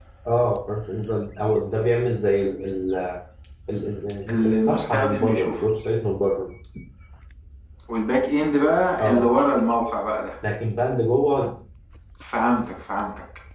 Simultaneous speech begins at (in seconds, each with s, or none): 4.3 s